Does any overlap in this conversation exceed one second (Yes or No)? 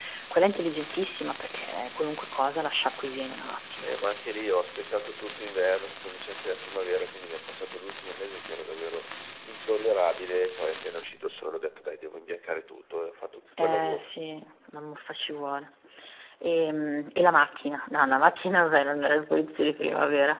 No